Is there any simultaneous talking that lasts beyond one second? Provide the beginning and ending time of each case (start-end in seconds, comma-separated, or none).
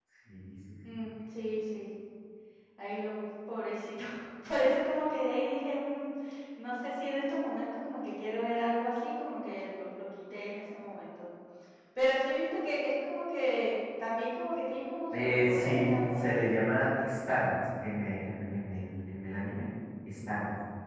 15.2-16.4